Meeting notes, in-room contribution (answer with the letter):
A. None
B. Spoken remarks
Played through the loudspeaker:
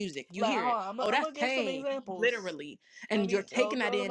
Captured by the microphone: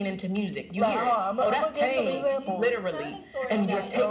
B